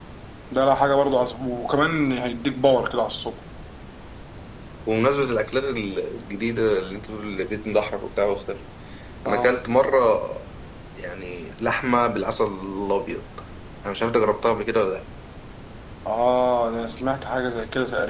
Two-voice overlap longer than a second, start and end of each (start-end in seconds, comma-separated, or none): none